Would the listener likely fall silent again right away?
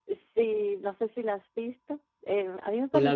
Yes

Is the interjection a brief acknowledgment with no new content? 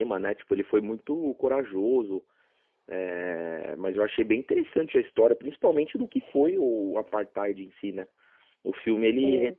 Yes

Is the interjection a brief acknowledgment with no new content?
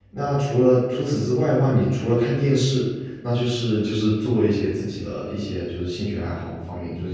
Yes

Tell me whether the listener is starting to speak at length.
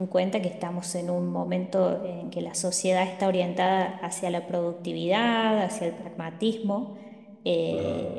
No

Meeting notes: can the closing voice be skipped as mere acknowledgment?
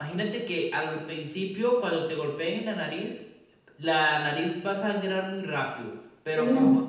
Yes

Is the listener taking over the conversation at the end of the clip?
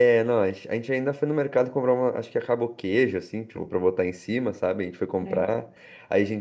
No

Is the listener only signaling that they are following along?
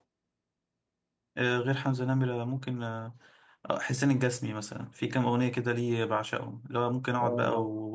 Yes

